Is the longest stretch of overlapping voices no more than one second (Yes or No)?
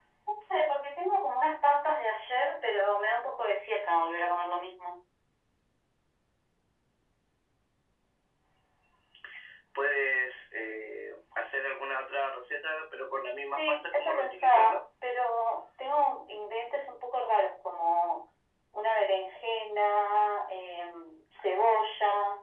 No